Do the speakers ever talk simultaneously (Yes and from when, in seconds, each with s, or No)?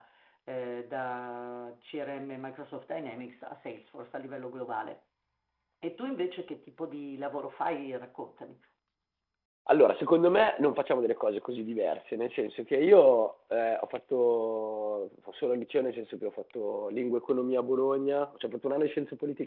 No